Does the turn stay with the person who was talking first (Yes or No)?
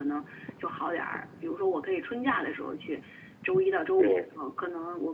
Yes